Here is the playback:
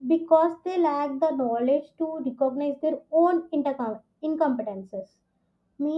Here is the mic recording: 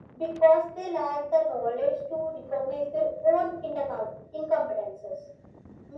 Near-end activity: none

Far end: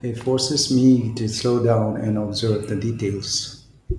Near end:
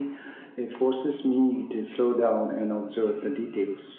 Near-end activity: none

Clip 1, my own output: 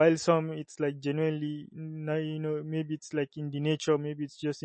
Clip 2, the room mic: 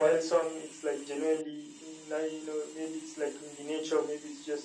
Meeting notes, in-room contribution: none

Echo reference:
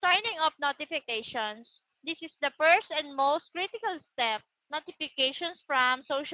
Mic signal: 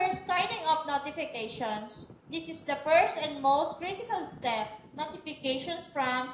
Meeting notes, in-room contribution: none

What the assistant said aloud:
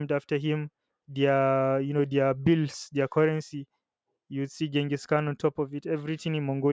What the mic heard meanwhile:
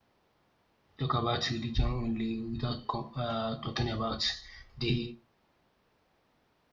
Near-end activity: present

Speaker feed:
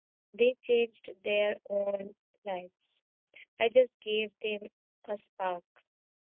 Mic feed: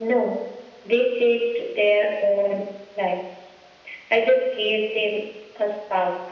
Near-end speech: none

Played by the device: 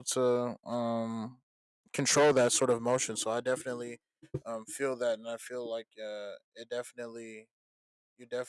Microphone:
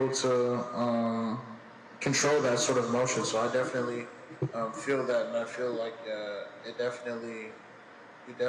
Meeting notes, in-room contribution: none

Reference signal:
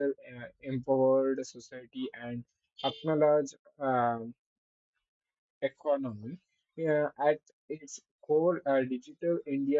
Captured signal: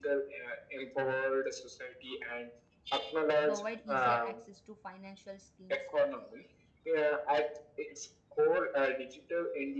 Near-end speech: present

